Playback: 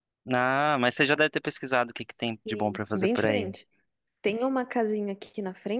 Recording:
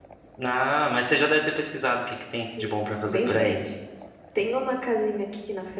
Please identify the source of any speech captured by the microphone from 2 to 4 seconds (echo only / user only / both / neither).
echo only